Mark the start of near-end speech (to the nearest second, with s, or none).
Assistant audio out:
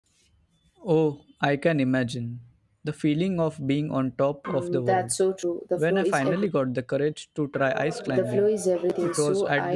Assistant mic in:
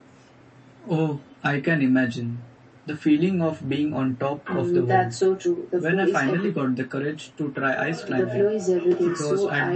none